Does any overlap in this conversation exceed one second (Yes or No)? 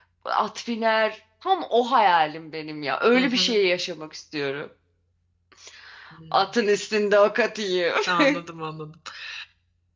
No